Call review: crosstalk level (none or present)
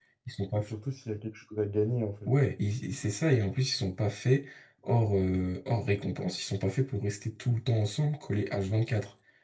none